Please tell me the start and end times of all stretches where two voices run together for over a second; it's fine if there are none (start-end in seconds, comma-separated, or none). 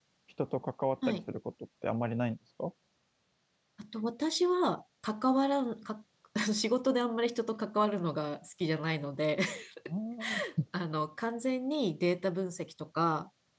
none